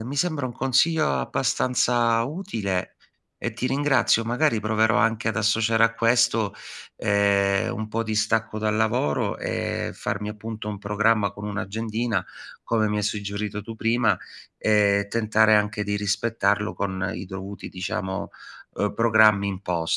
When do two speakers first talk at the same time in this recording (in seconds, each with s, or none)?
none